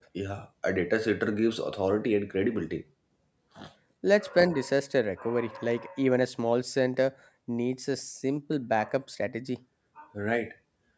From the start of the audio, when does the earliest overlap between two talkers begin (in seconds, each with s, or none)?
none